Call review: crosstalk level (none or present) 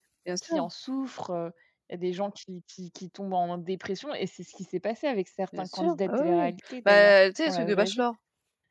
present